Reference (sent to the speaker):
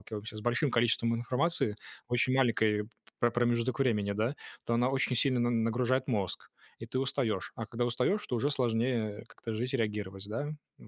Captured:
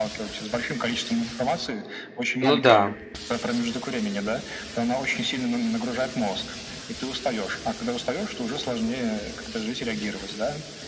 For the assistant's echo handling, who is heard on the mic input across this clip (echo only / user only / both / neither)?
both